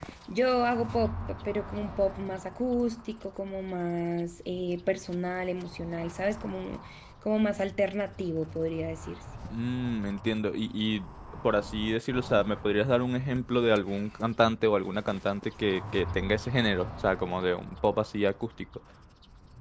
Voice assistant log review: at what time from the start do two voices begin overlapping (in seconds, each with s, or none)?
none